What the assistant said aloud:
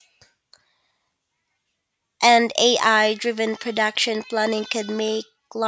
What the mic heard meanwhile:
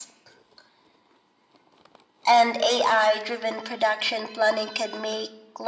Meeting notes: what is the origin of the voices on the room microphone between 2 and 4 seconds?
echo only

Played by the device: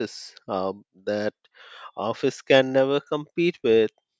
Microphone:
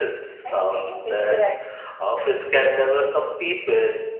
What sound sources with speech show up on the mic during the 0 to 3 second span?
both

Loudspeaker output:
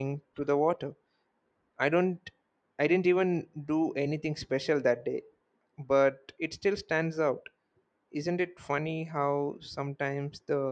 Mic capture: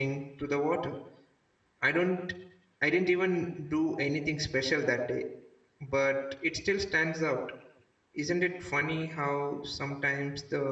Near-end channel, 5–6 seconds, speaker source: echo only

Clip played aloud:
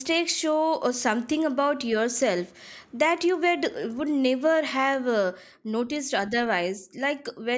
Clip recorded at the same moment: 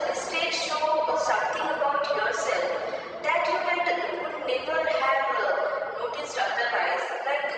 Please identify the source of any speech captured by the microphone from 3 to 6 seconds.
echo only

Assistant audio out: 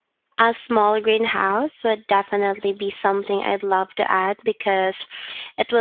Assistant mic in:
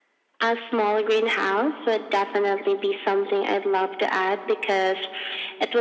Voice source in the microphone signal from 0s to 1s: echo only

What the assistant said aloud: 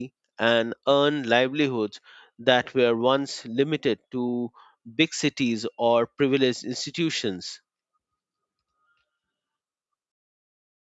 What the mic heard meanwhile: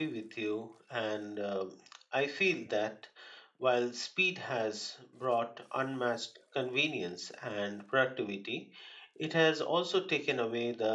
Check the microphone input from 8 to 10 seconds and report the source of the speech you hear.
user only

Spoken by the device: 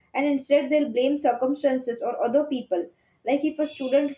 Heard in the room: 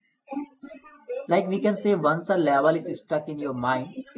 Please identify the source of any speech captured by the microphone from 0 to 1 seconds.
echo only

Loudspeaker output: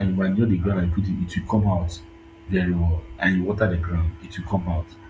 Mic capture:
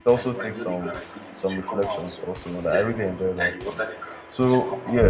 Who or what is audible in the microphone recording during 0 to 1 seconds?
both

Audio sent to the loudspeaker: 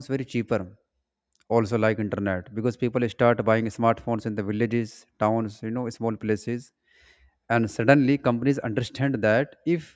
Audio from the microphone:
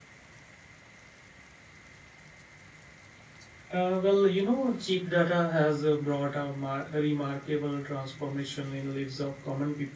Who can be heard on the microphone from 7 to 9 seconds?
user only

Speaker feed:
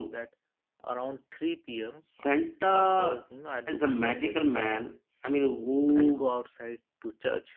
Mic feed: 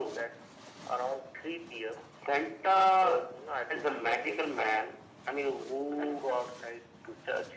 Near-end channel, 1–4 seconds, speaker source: echo only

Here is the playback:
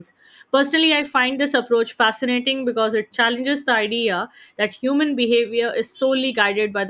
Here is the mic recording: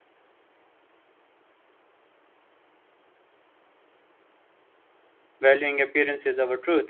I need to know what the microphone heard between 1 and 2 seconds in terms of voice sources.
neither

